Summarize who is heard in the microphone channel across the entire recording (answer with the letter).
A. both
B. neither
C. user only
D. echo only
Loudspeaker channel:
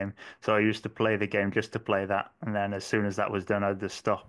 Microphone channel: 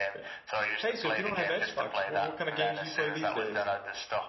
A